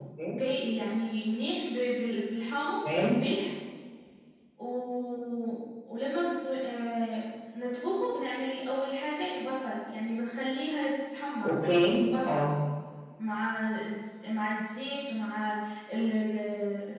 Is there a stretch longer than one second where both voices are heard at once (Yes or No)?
No